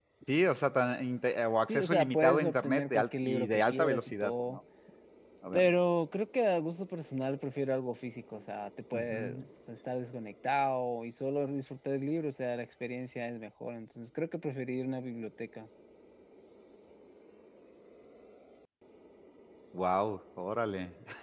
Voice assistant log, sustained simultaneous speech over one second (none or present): present